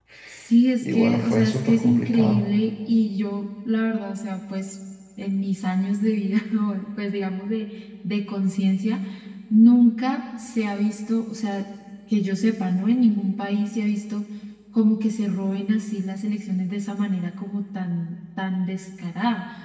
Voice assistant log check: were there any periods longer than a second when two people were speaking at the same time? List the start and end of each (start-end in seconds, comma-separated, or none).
0.8-2.5